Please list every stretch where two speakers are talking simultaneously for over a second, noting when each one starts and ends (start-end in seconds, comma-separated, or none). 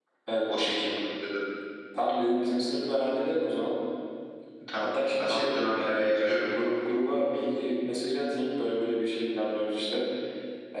4.8-6.5